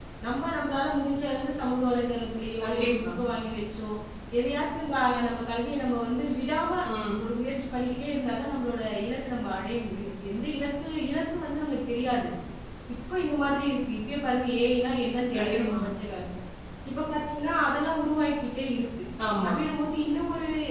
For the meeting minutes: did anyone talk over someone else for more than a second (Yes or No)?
No